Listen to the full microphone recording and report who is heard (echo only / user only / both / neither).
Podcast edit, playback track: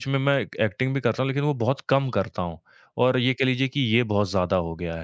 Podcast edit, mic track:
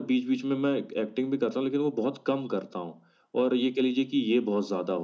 echo only